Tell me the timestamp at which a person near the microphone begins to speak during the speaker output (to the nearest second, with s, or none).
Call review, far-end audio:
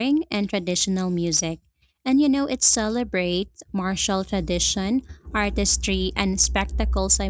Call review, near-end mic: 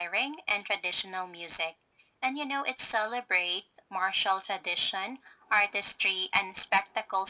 none